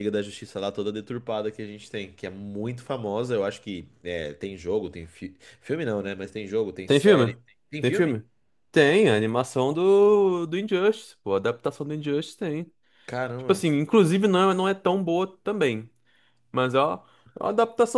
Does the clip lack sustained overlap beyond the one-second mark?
Yes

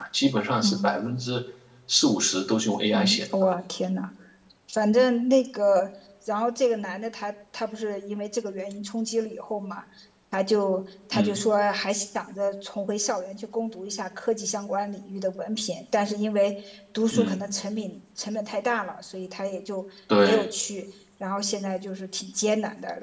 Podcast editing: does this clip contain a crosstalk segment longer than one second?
No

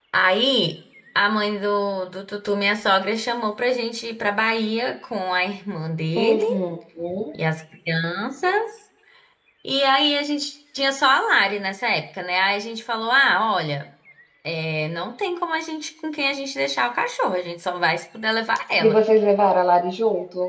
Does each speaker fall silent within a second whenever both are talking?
Yes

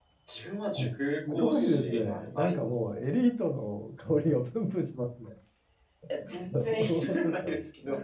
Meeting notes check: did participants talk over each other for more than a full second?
Yes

